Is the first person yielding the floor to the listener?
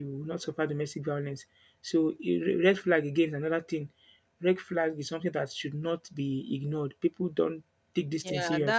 Yes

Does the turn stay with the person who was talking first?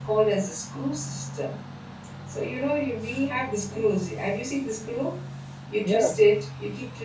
Yes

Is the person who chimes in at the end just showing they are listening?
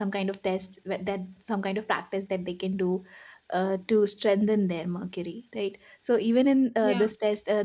Yes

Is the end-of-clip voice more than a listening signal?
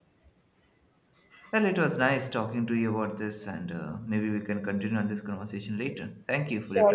Yes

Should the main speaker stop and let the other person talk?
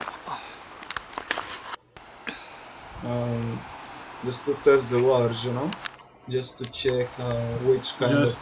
No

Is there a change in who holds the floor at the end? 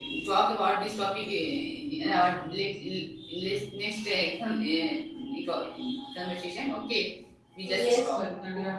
Yes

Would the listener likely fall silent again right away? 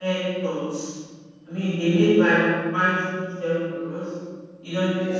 Yes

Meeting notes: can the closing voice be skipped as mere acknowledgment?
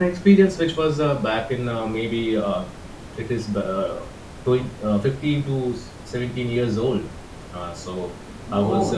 No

